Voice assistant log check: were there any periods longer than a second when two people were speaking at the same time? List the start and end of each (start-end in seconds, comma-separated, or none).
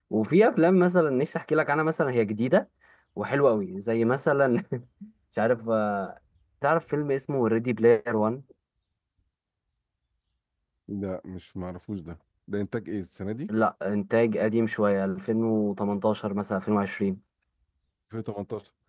none